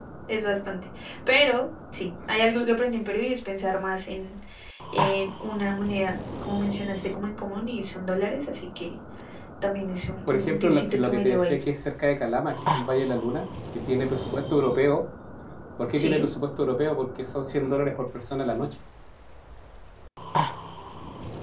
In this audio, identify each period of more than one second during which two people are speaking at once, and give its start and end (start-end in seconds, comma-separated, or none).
10.3-11.6